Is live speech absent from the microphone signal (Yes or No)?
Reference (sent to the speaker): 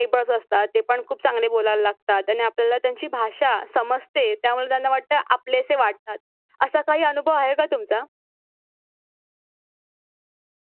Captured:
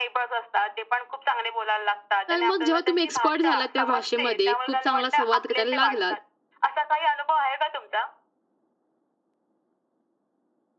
No